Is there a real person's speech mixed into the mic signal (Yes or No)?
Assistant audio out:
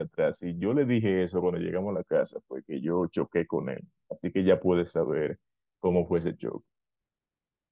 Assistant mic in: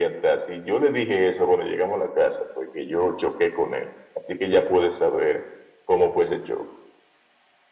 No